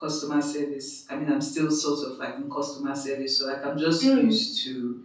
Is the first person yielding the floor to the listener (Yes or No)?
No